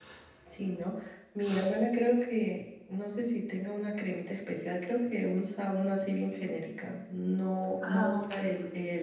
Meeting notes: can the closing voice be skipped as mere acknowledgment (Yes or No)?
Yes